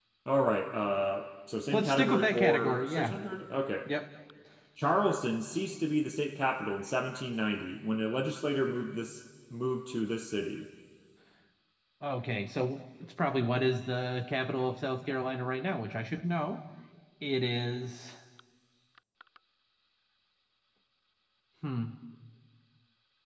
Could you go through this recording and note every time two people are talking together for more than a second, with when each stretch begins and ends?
1.7-3.2

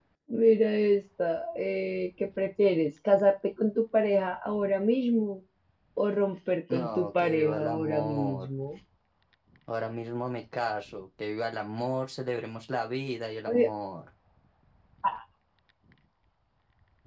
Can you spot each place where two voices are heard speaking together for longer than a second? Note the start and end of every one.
6.7-8.5

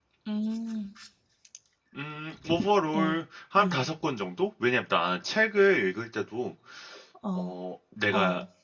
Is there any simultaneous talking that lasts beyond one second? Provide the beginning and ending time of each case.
none

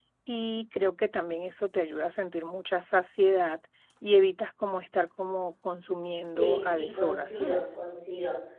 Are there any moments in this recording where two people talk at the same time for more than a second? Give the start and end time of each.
6.3-7.6

